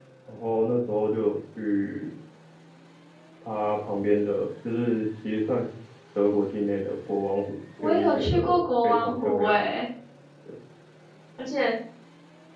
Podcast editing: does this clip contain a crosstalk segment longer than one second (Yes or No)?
Yes